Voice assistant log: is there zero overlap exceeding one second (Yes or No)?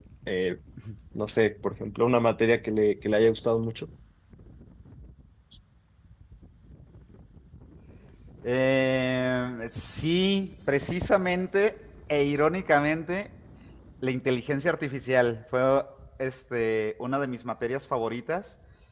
Yes